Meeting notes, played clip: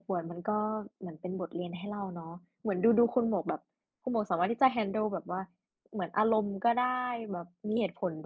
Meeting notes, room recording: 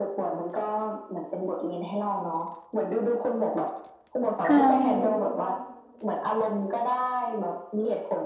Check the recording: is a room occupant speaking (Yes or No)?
Yes